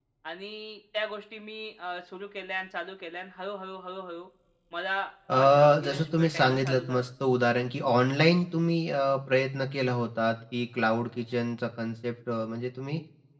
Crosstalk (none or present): present